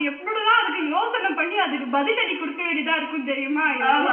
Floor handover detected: Yes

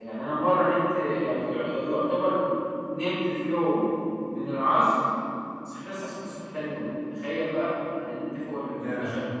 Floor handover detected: No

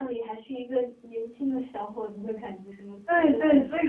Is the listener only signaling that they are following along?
No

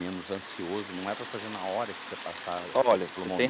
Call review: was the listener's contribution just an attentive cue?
No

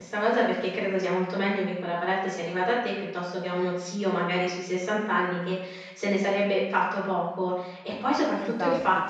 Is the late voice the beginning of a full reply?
No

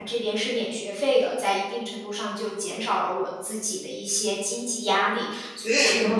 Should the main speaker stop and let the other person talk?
No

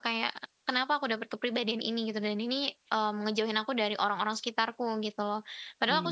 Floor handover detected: No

